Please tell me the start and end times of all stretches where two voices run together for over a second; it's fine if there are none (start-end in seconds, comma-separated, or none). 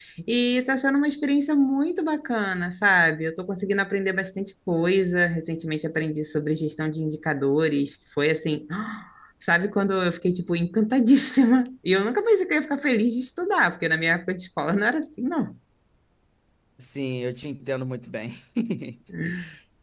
none